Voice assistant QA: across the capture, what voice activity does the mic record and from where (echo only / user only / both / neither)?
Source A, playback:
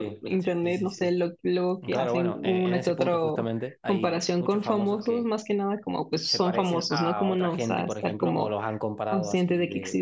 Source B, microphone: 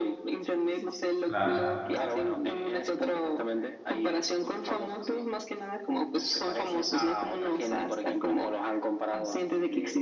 both